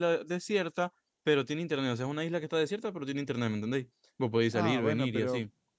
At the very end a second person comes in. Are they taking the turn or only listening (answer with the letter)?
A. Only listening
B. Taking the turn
B